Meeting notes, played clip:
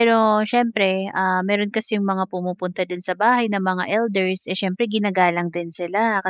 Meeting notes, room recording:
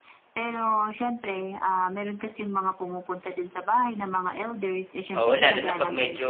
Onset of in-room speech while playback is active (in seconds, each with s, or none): 5.2 s